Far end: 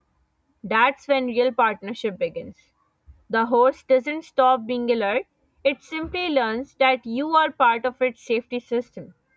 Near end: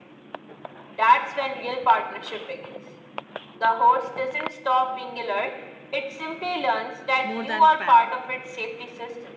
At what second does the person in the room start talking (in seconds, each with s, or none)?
7.2 s